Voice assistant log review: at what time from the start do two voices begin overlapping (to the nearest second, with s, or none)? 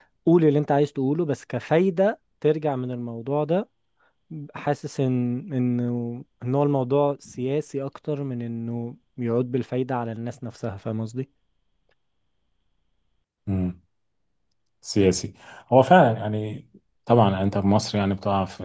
none